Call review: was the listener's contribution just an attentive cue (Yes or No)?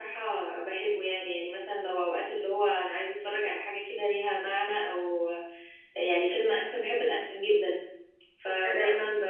Yes